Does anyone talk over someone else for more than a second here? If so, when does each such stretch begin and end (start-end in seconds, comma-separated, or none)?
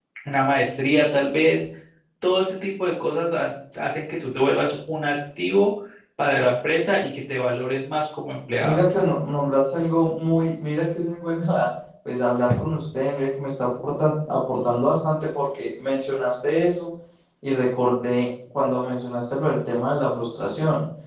none